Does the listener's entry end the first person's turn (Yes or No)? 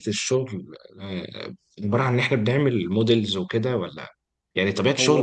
No